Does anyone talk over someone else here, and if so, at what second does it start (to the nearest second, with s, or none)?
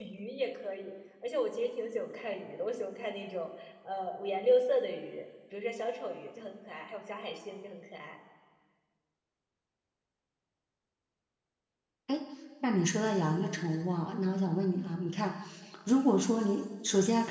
none